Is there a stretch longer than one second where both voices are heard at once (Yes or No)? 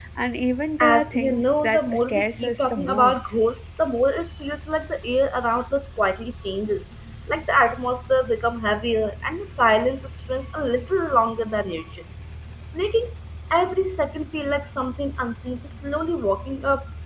Yes